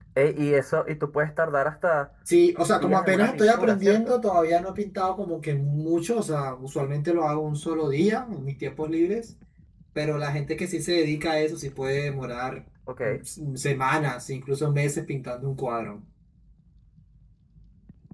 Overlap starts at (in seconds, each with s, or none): 2.6 s